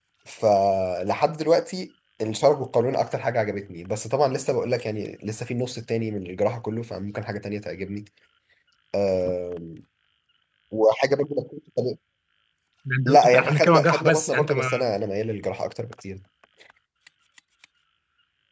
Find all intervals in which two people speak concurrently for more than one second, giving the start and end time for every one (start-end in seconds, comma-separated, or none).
13.0-14.7